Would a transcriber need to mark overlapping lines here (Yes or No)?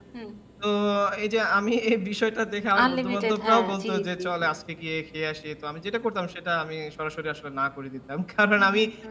Yes